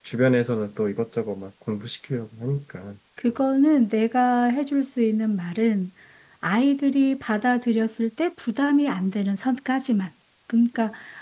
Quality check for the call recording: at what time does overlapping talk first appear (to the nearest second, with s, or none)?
none